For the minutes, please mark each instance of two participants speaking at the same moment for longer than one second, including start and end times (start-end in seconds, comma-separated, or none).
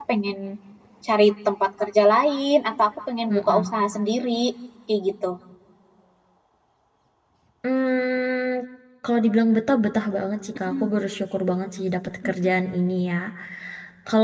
none